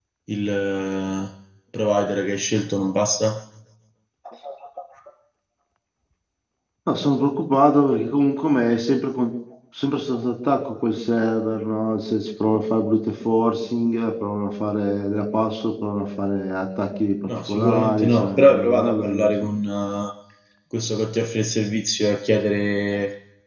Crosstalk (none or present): present